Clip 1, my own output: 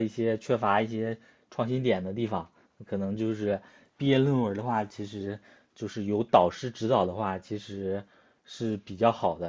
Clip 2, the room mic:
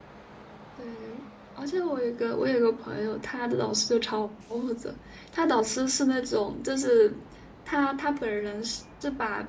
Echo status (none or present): none